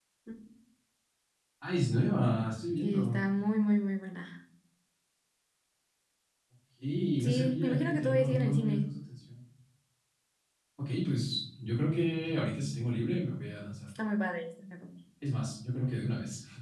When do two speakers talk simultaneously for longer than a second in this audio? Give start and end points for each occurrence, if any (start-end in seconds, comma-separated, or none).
7.2-8.9